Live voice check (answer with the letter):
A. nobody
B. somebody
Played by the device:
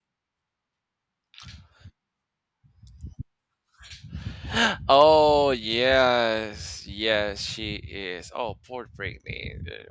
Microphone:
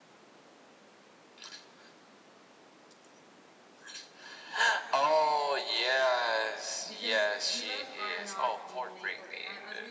B